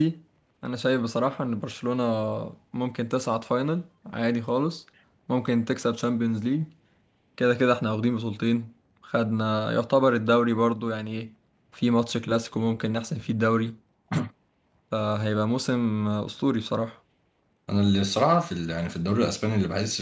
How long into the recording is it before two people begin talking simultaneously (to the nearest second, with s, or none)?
none